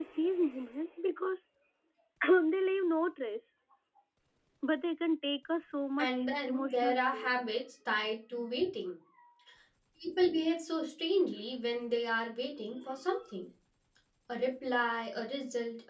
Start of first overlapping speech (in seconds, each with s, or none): 6.0 s